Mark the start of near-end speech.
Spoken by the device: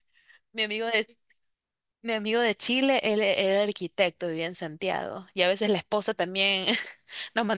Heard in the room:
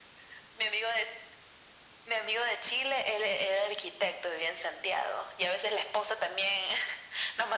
none

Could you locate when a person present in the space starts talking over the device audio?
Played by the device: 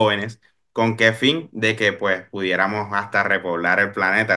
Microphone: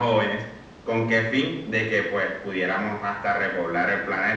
none

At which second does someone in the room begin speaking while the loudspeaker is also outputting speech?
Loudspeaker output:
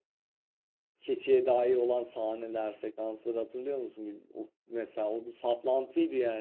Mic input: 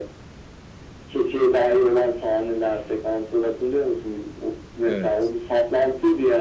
4.9 s

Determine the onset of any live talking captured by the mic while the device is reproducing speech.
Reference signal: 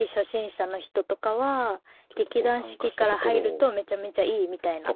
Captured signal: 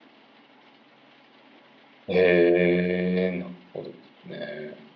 2.1 s

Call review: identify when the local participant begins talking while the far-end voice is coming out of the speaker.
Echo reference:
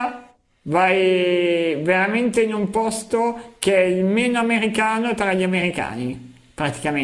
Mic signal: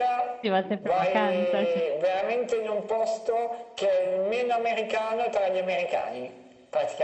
0.4 s

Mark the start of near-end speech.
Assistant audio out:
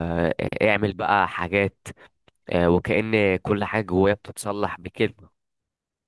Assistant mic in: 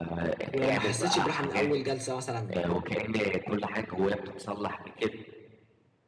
0.5 s

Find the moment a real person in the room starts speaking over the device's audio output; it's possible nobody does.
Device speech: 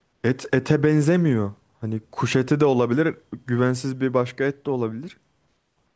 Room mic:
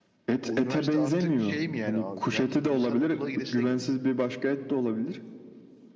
0.4 s

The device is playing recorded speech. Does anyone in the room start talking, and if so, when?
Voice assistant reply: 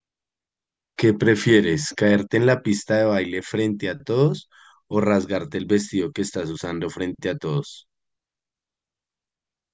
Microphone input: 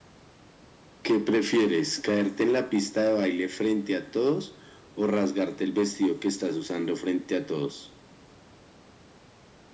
none

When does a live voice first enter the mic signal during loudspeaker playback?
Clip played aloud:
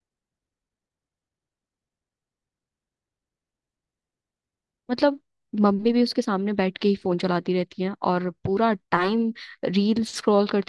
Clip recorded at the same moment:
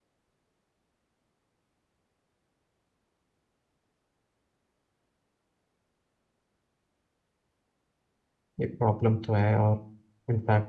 8.6 s

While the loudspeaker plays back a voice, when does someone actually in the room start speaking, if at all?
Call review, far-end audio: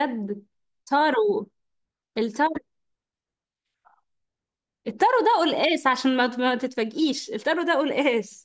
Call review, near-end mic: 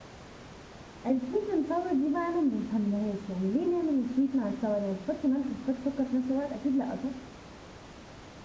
1.1 s

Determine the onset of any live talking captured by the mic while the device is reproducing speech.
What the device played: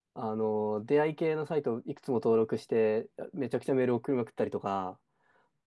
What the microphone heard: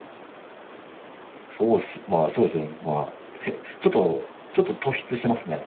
1.4 s

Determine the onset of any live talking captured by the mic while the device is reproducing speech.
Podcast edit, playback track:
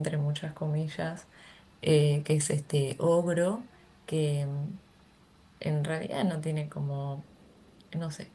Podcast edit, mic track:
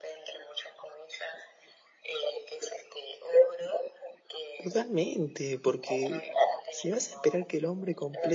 4.6 s

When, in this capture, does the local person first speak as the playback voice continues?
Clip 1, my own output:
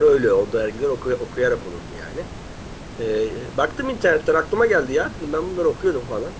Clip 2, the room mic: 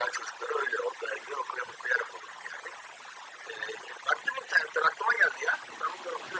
none

